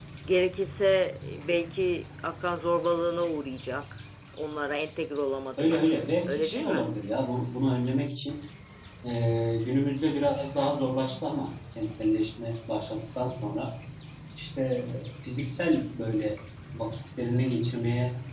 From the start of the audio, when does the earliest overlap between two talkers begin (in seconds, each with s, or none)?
5.6 s